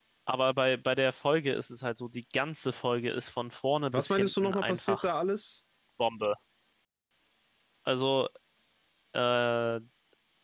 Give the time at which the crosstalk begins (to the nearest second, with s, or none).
4 s